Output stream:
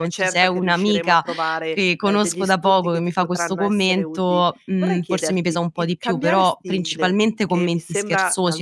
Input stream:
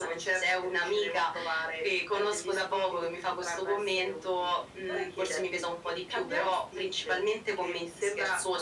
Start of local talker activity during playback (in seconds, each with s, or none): none